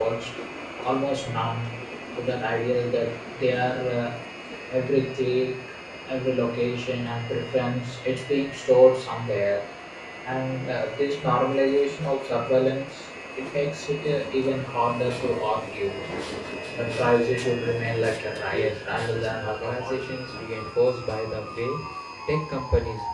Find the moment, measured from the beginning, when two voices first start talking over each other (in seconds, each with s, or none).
18.5 s